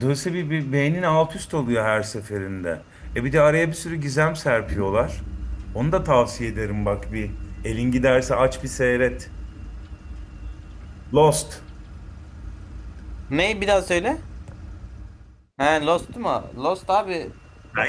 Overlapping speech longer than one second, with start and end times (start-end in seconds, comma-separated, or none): none